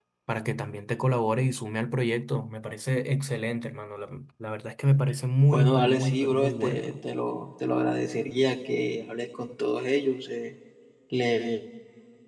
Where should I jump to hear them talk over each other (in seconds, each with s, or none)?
5.5 s